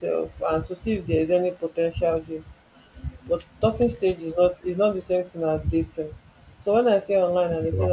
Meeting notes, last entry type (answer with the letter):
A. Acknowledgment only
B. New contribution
A